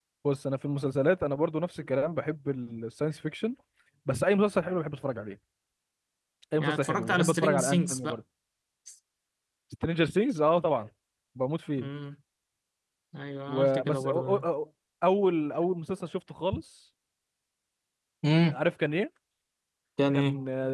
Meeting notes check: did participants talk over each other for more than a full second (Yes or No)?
Yes